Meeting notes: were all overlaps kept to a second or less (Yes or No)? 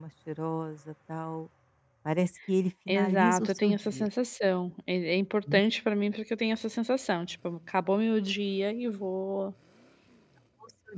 No